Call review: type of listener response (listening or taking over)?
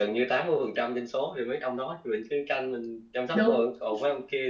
listening